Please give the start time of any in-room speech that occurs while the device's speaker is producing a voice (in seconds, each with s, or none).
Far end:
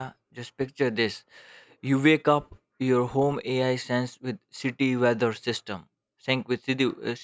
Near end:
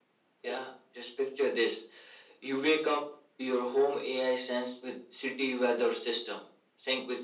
none